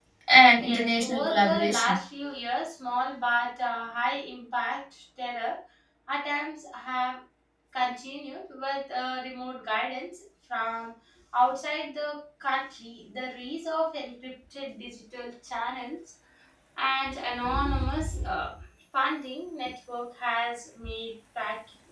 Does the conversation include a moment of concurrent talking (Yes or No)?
Yes